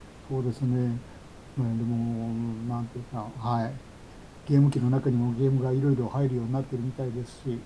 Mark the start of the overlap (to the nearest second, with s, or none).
none